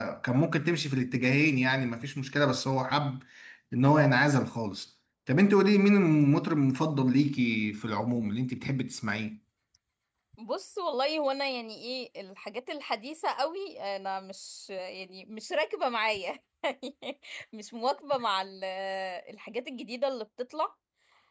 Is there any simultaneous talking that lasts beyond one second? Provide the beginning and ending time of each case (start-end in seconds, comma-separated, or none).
none